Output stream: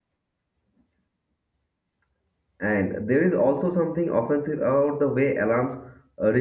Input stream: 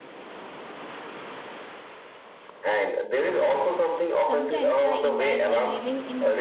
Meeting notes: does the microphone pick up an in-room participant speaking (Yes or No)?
Yes